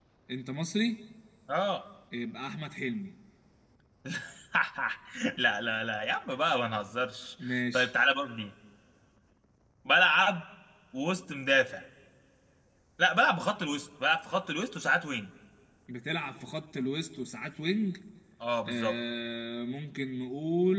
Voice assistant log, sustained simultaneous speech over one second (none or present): none